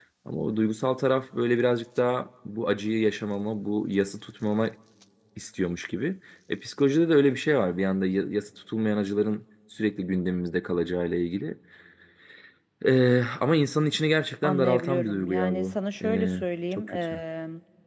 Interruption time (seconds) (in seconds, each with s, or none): 14.4 s